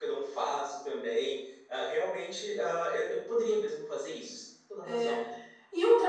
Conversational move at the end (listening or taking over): taking over